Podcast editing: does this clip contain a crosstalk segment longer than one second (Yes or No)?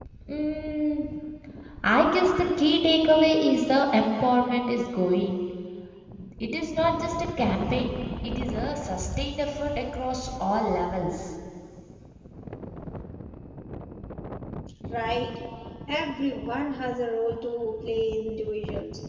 No